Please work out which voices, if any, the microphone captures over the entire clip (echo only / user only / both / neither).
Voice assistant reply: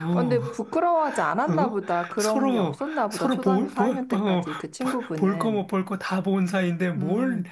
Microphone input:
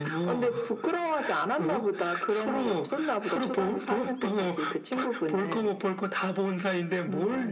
echo only